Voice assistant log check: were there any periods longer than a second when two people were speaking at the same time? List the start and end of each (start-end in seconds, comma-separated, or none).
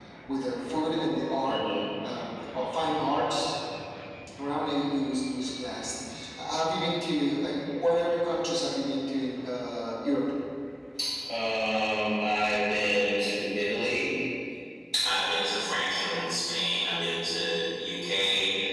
none